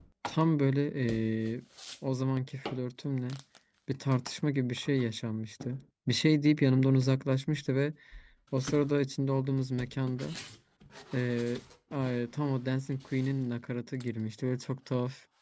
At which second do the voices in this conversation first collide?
none

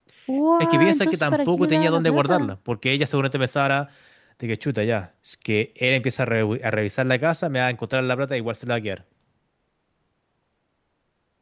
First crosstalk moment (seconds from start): 0.6 s

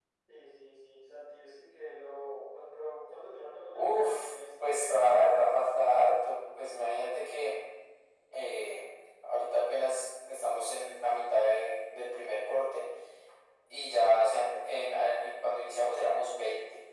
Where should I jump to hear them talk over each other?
3.7 s

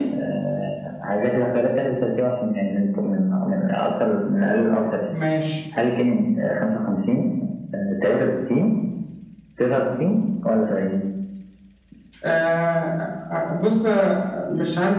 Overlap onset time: none

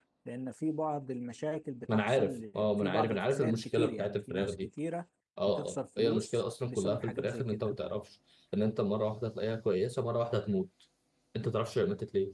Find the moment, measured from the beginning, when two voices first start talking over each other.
1.9 s

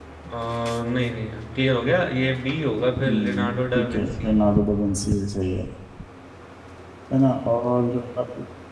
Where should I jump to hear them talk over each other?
3.0 s

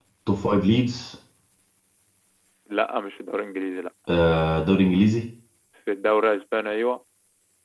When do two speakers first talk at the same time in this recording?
none

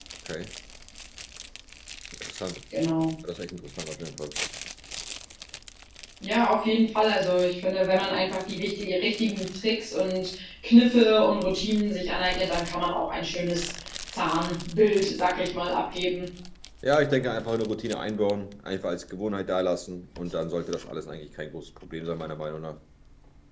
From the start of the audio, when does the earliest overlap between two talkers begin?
none

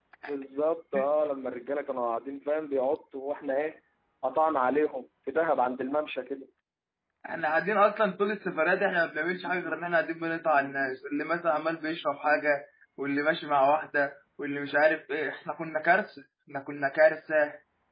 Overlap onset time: none

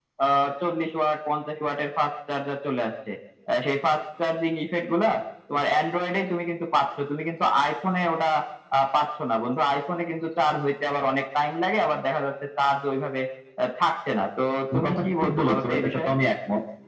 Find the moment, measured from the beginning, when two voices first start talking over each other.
14.7 s

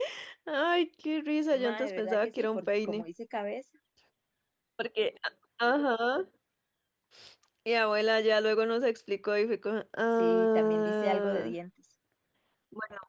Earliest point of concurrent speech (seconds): 1.5 s

